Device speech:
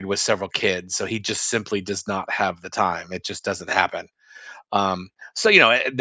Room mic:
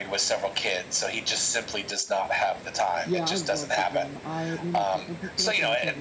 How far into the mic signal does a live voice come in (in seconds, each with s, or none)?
3.0 s